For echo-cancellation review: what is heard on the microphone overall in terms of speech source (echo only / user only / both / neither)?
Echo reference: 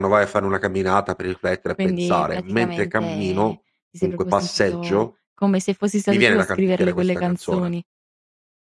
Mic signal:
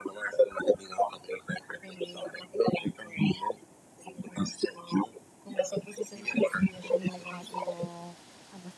both